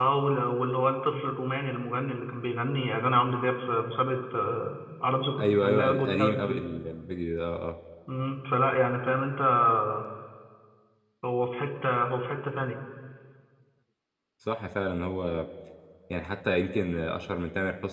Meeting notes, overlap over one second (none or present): present